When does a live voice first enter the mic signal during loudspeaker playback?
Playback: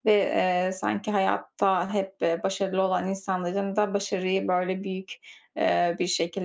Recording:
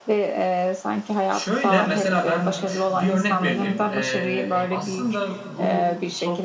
1.3 s

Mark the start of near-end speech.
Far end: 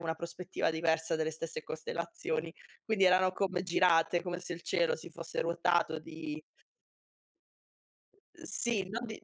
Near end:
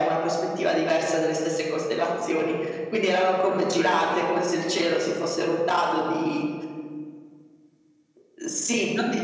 3.3 s

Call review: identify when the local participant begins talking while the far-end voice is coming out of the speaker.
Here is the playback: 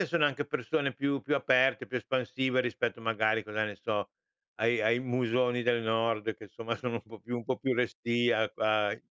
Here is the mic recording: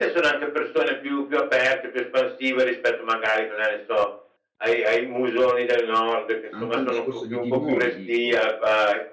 6.5 s

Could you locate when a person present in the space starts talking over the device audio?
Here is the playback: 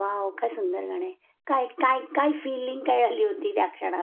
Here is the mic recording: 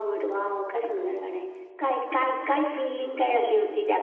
none

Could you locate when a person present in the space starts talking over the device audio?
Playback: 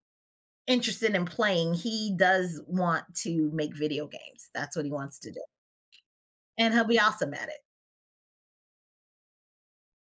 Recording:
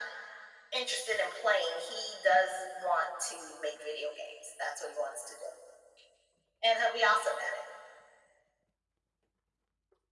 none

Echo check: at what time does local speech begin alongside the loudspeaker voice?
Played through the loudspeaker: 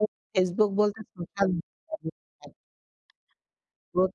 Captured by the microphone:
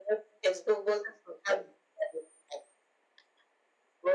none

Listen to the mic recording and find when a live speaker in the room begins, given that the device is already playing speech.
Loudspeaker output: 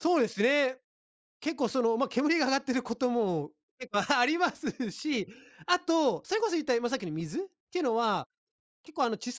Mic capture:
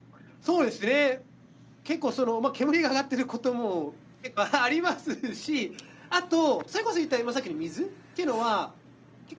none

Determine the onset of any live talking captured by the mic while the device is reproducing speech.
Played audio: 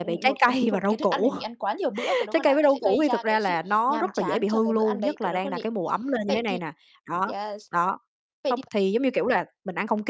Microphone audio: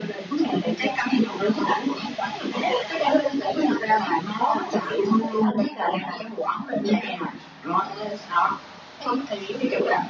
none

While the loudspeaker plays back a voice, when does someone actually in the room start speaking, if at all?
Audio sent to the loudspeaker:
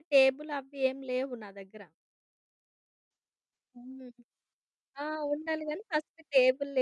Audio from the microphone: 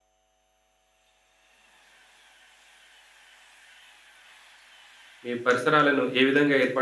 5.3 s

